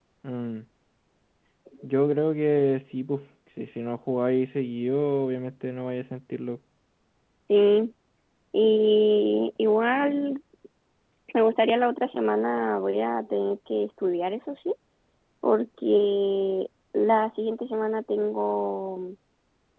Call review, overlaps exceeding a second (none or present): none